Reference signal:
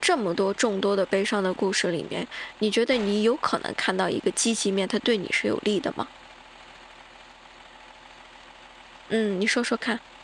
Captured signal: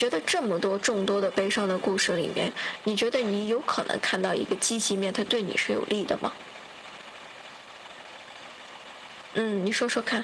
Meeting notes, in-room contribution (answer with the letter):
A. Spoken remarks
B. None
B